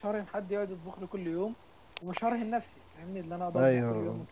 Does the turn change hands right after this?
Yes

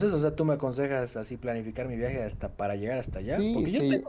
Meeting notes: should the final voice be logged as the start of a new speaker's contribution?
No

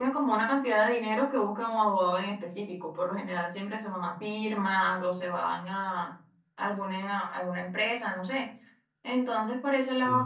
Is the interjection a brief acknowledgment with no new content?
Yes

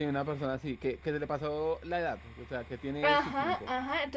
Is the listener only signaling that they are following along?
No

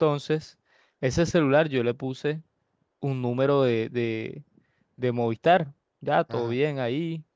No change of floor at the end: Yes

